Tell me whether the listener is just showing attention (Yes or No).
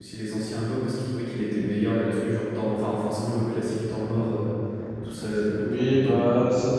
No